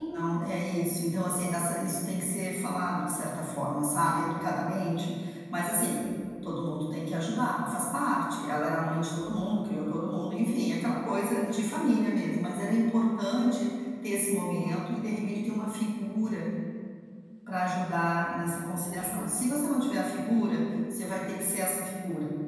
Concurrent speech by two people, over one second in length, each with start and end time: none

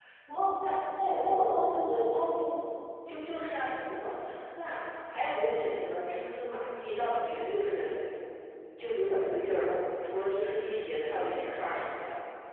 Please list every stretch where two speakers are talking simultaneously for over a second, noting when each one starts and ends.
none

